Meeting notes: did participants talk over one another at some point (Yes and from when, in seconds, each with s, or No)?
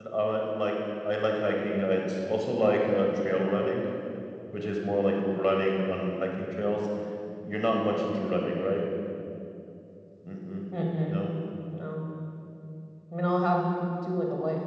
No